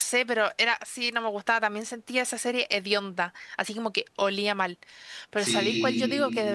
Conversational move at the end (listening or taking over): listening